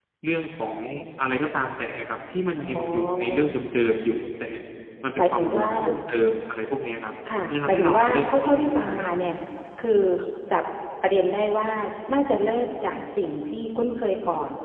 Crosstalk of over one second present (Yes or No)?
Yes